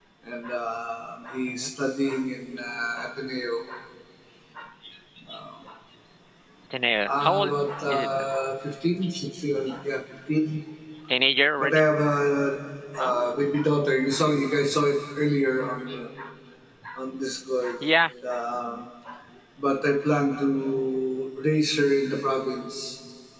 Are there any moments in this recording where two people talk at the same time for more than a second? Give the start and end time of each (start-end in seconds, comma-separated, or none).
7.1-8.3